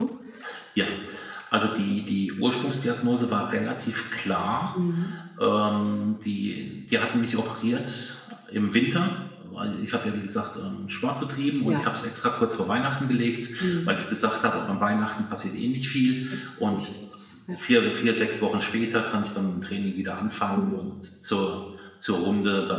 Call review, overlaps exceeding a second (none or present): none